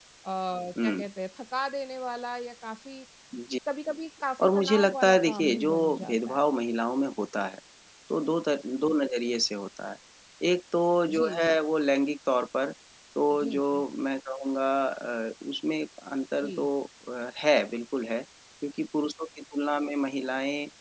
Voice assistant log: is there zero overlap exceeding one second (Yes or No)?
No